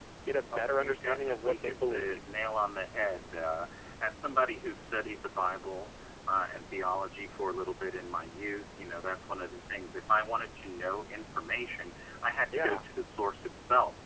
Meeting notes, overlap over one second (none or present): present